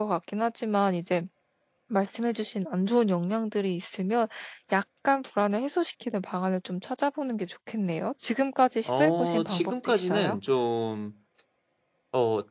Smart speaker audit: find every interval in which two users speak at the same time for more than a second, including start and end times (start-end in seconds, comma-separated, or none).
8.9-10.4